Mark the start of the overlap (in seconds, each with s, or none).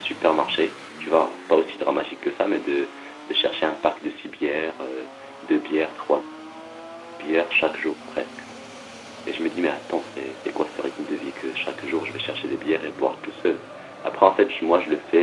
none